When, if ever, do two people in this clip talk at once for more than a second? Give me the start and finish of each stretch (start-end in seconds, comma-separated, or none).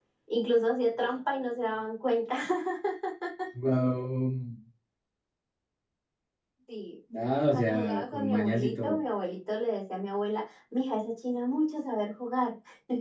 7.5-9.0